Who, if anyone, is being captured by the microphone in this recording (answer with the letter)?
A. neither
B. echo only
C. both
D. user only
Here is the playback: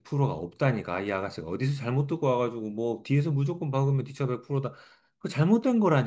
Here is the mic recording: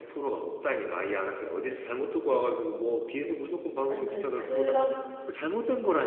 C